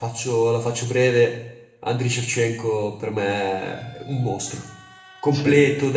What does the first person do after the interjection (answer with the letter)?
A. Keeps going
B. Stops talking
A